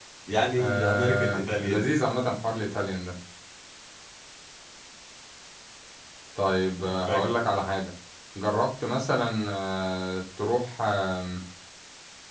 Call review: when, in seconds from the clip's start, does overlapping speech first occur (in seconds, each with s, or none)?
0.6 s